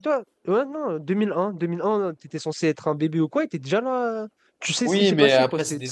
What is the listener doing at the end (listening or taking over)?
taking over